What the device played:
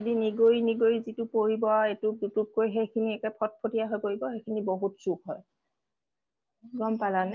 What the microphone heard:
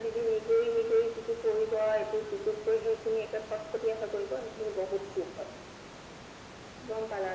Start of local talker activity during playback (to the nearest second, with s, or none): none